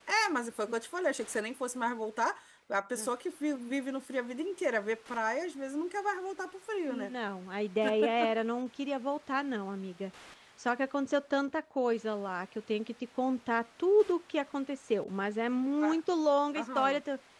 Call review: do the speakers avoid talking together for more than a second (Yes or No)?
Yes